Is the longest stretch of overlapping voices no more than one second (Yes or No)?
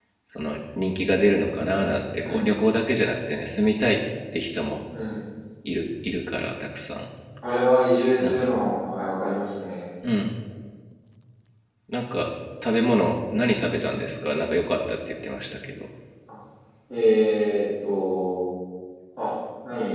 Yes